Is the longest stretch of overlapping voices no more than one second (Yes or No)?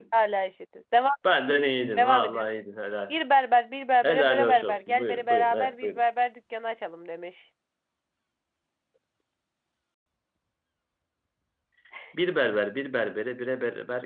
No